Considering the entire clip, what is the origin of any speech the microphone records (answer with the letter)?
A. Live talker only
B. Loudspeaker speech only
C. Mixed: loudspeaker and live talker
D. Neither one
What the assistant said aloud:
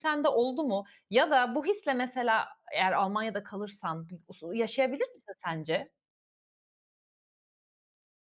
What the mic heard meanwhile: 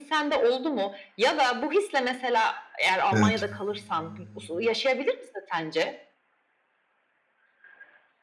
C